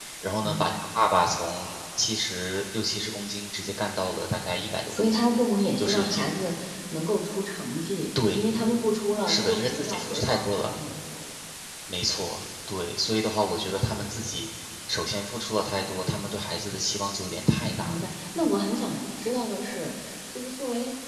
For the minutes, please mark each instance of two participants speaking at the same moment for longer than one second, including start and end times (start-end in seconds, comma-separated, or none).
9.3-10.7